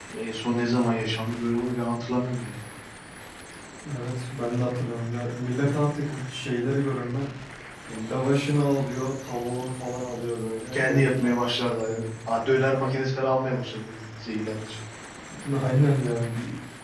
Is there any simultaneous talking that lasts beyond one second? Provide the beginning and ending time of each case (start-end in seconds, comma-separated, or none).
10.7-12.1